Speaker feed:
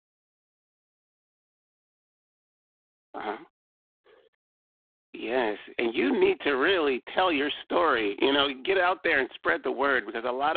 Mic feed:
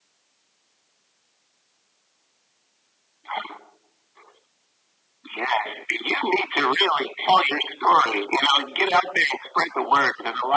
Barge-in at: none

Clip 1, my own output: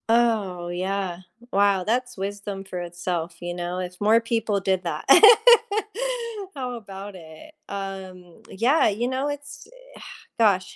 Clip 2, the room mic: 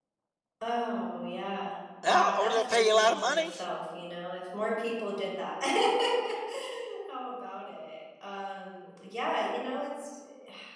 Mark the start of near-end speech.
2 s

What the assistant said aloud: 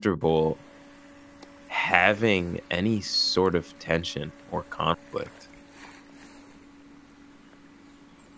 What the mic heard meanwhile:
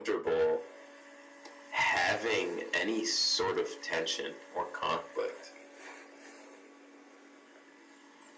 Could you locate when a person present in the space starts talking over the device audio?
none

